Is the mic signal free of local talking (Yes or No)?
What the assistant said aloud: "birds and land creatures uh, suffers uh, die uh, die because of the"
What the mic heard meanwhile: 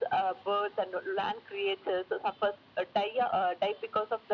Yes